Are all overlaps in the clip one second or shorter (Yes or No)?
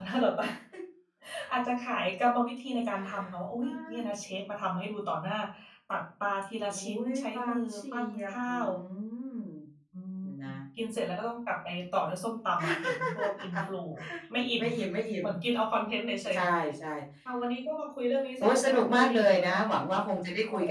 No